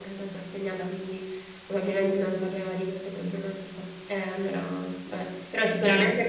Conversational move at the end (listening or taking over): listening